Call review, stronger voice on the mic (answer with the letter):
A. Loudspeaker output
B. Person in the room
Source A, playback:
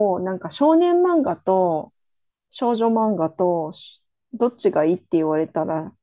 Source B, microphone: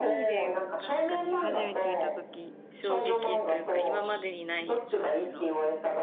A